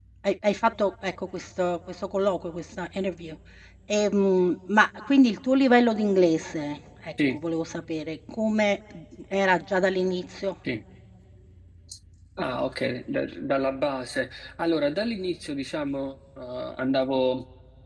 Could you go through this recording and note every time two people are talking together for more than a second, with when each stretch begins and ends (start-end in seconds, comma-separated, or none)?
none